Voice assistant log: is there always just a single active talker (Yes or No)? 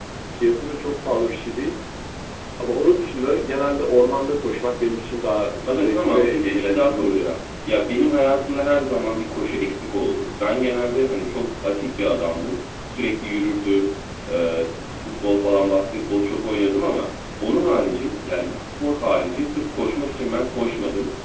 No